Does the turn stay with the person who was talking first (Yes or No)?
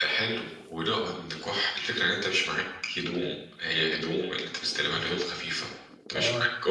Yes